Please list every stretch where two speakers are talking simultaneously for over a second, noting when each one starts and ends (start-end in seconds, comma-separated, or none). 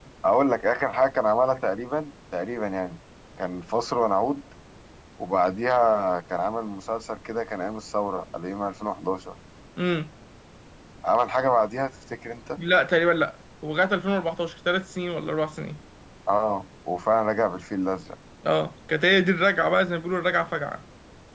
none